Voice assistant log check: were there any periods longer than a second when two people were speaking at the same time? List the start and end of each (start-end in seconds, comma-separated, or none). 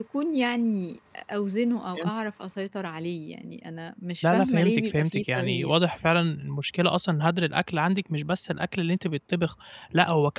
4.2-5.7